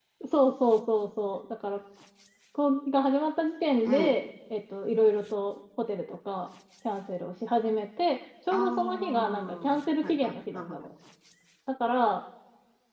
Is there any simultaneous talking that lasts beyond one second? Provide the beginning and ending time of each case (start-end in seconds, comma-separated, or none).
8.5-10.8